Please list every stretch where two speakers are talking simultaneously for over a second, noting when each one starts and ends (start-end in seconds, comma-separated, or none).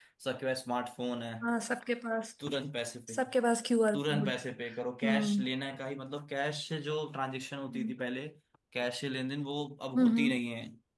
none